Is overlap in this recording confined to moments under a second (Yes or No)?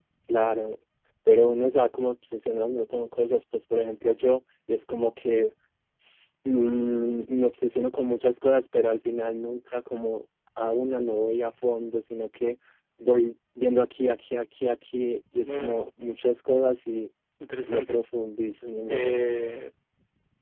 Yes